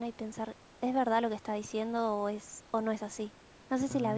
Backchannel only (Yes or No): No